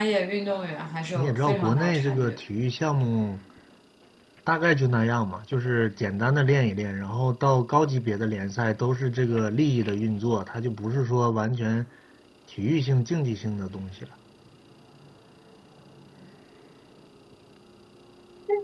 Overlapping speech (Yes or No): Yes